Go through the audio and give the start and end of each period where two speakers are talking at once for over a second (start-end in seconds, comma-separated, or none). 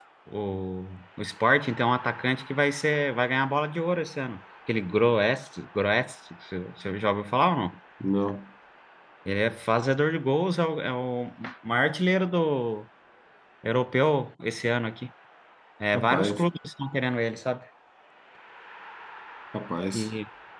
none